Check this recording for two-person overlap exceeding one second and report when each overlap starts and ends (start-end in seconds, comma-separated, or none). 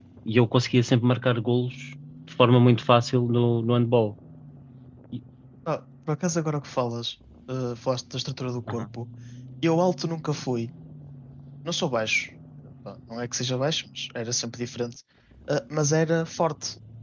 none